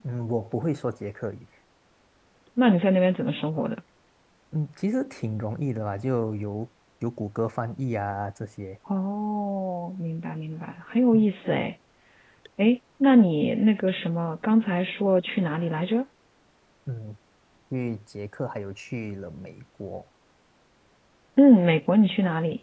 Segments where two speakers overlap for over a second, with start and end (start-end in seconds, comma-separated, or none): none